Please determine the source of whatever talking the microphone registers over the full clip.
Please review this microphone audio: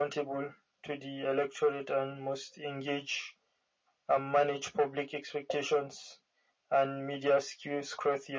echo only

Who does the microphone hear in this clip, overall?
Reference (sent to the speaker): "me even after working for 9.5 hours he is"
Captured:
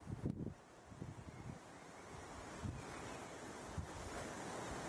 neither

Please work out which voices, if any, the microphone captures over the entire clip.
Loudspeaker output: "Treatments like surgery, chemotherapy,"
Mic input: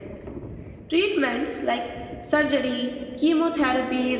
echo only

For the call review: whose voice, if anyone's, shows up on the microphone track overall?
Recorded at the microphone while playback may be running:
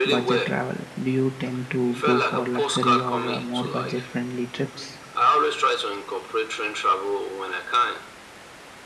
both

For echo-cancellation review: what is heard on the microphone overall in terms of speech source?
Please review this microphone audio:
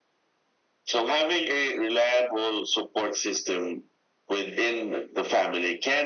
echo only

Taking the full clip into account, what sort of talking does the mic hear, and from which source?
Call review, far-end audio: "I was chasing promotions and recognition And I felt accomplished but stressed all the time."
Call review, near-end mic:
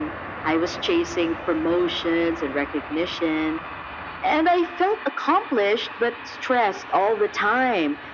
echo only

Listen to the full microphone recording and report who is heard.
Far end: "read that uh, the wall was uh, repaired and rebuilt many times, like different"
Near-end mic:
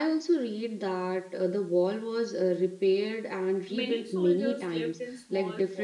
both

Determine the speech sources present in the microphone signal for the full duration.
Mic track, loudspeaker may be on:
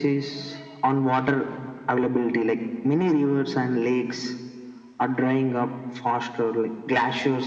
echo only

